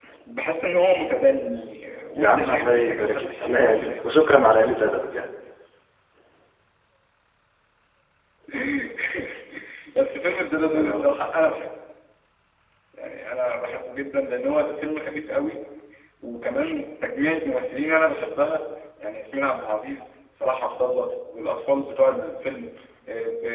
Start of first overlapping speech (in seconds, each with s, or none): 2.2 s